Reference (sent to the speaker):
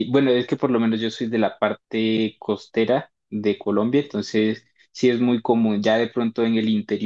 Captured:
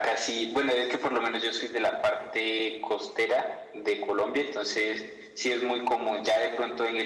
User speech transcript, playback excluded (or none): none